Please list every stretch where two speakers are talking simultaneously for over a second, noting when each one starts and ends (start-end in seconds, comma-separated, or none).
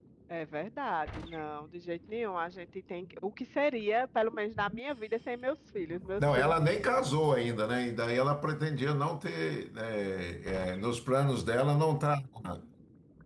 none